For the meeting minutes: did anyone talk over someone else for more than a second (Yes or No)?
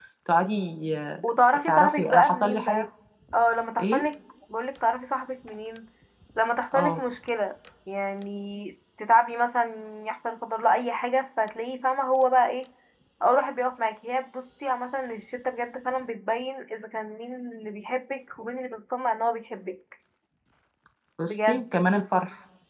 Yes